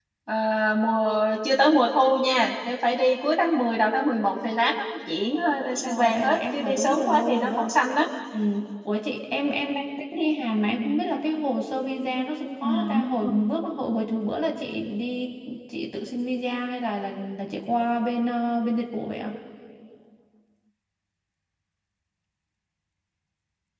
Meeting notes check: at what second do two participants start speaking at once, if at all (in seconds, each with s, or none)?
5.8 s